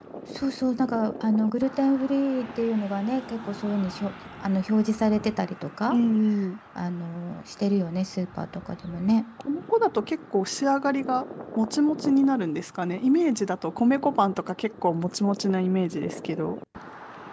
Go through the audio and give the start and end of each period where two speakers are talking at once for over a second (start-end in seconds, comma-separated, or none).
none